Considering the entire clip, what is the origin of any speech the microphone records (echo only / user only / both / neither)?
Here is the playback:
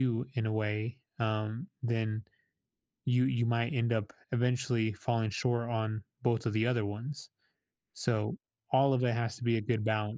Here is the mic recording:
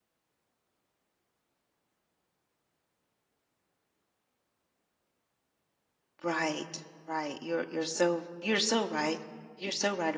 user only